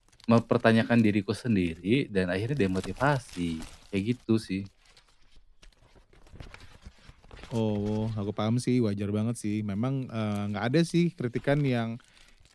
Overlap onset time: none

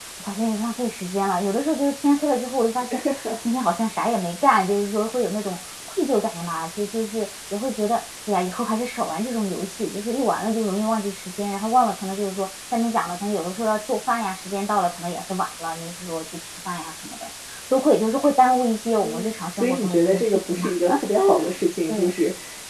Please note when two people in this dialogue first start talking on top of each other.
19 s

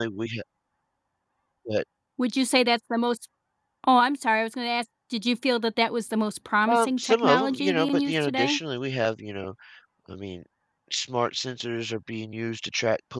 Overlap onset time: 7 s

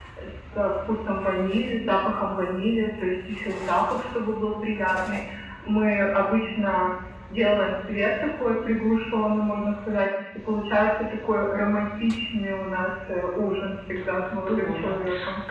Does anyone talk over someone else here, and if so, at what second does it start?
14 s

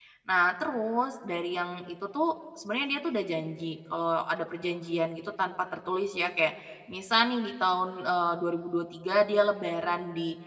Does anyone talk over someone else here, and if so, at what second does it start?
none

